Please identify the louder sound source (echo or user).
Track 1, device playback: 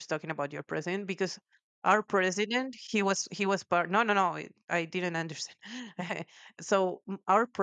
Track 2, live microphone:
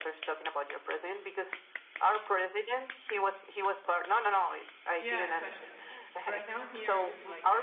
echo